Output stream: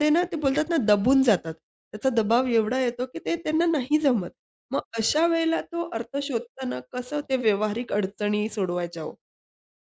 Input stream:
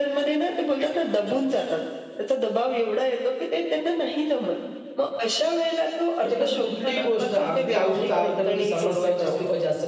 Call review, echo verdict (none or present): present